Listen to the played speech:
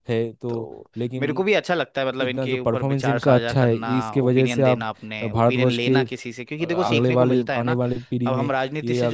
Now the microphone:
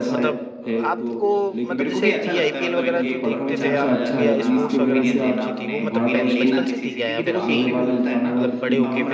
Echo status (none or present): present